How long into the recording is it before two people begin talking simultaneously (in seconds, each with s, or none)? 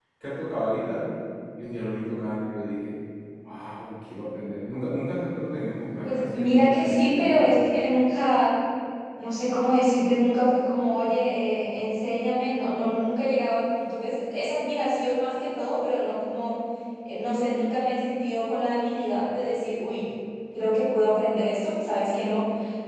6.0 s